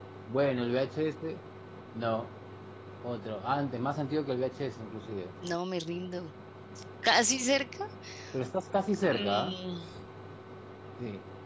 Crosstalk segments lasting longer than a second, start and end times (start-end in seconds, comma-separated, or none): none